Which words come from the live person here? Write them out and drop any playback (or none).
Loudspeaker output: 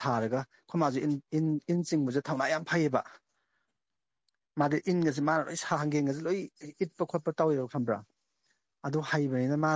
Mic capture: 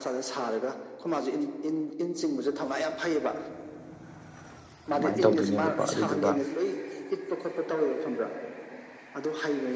ꯁꯃꯥꯏꯅ ꯇꯧꯗꯣꯏꯅꯦꯕꯀꯣ ꯑꯗꯨꯗꯨꯒ